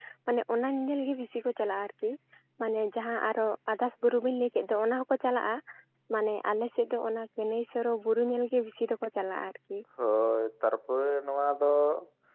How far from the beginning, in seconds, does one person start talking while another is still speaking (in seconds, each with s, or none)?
none